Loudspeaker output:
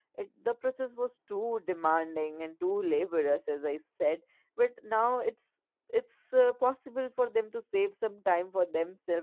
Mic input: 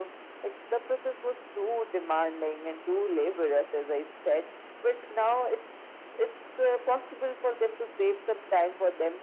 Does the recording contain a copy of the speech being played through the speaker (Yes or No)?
Yes